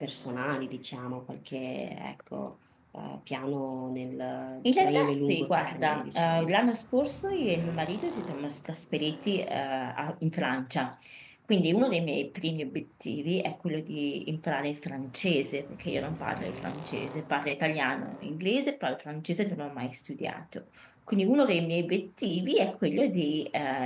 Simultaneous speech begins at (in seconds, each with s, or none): 4.7 s